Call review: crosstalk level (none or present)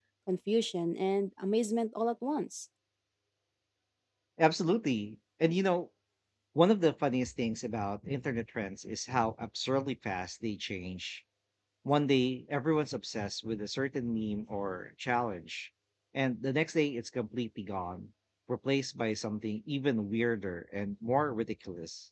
none